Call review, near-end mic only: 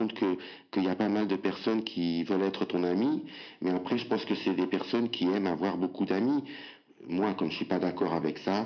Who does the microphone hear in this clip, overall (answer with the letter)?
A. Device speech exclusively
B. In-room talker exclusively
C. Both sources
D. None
A